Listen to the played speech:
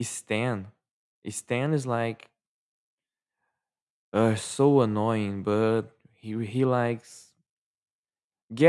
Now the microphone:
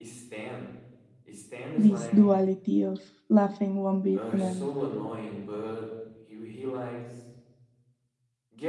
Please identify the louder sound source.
user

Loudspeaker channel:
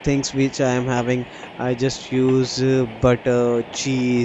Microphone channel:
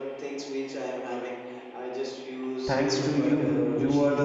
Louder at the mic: user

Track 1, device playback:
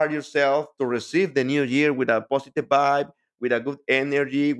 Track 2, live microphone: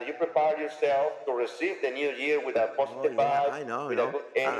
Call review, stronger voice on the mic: echo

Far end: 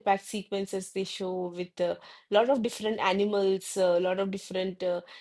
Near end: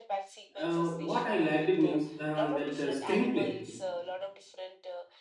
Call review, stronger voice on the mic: user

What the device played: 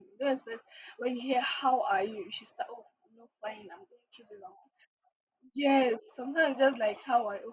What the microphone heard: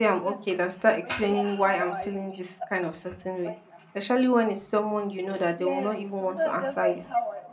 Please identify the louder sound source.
user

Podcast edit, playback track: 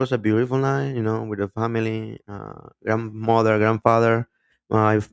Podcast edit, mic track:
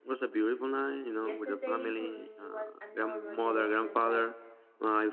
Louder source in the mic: echo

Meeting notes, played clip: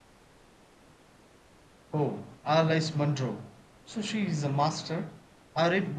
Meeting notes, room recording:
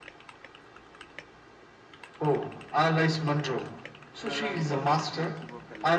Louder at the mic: echo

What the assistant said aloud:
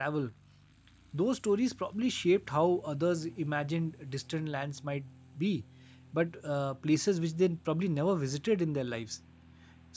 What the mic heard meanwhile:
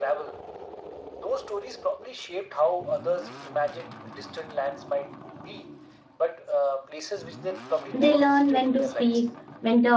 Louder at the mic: user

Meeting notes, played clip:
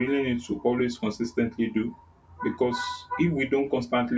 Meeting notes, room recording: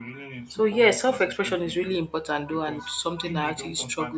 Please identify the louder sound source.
user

